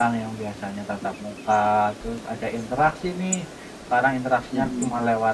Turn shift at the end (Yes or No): No